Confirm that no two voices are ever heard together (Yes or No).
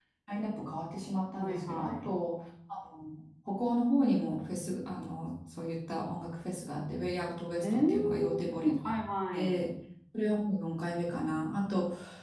No